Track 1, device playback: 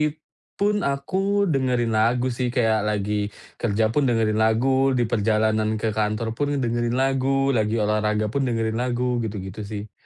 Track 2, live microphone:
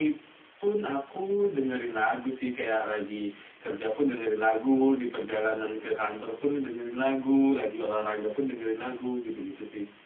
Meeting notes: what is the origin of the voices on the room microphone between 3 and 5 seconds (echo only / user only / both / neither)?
echo only